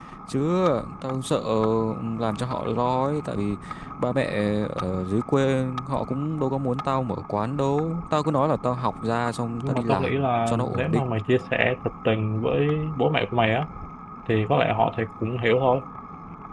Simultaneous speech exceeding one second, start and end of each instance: 9.6-11.0

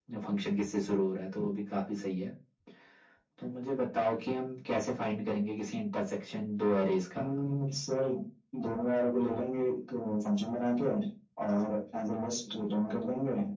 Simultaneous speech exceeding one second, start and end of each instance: none

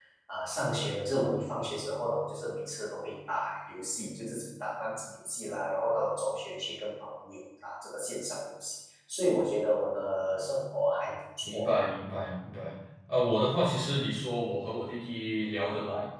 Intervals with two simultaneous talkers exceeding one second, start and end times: none

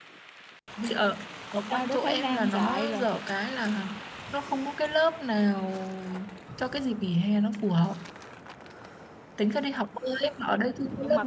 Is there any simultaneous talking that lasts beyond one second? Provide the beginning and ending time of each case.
1.7-3.0

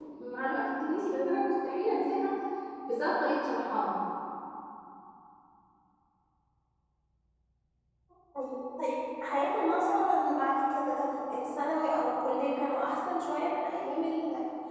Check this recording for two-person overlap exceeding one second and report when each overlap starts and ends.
none

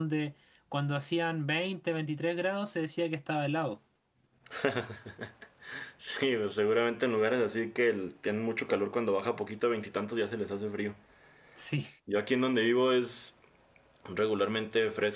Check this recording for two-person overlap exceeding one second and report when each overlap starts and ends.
none

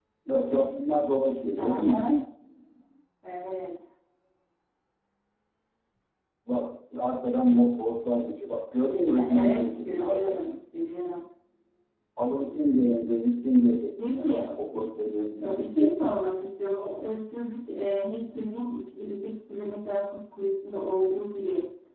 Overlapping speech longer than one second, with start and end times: 9.1-10.5

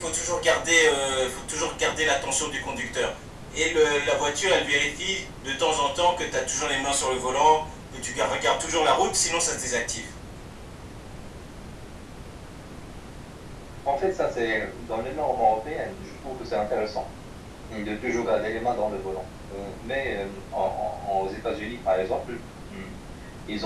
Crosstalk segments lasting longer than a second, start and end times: none

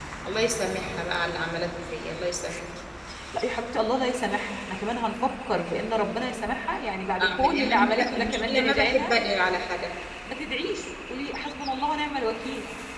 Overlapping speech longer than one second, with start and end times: 7.2-9.1

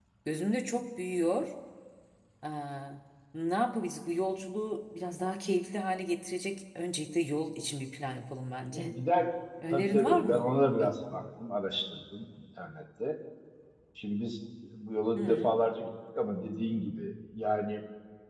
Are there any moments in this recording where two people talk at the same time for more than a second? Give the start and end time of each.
9.7-10.9

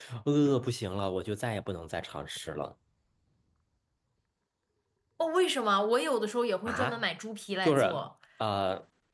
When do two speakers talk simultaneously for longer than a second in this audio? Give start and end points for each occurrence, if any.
none

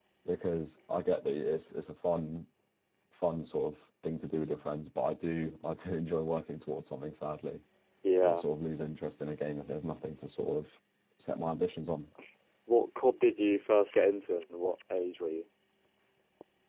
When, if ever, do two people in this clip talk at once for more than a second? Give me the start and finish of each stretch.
none

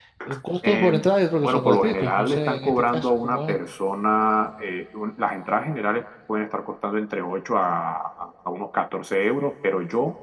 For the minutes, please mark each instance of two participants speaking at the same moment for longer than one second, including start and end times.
1.4-3.6

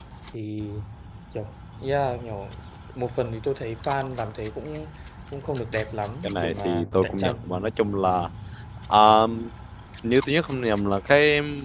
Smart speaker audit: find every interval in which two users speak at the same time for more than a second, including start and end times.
6.2-7.5

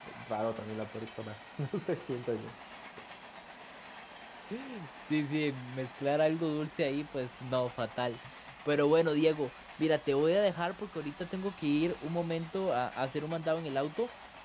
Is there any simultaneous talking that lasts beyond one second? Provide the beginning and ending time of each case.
none

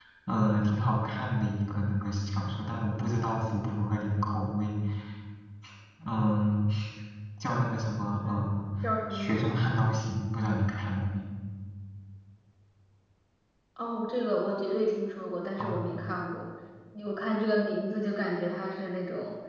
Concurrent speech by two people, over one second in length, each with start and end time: none

